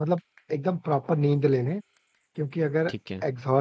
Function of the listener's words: listening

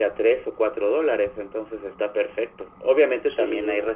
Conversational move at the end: listening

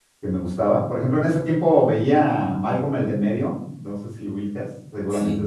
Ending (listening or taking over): taking over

